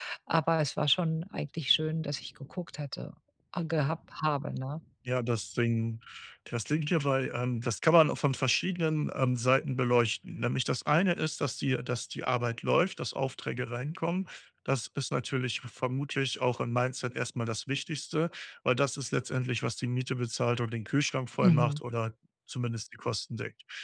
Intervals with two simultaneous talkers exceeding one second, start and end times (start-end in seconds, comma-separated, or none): none